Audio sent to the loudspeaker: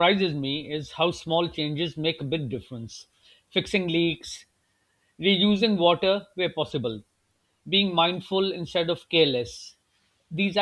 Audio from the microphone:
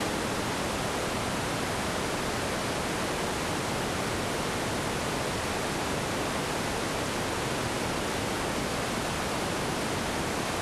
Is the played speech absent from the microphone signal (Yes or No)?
Yes